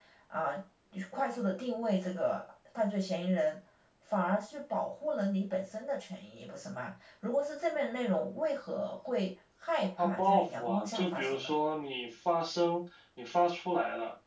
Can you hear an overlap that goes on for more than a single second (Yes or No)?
Yes